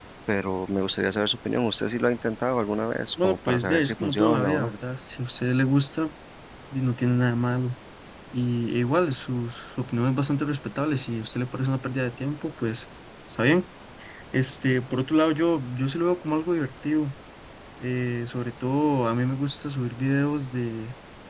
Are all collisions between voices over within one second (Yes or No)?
No